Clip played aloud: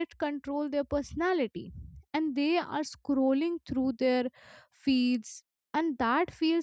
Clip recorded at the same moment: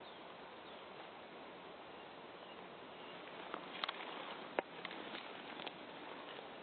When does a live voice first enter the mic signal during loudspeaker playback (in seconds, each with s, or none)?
none